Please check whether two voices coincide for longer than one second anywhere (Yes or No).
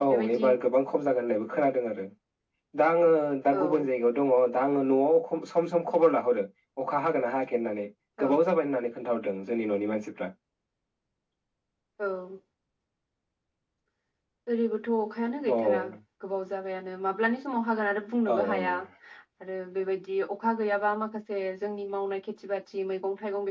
No